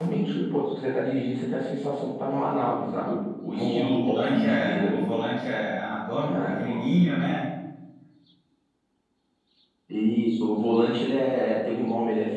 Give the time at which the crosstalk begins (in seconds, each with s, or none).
3.6 s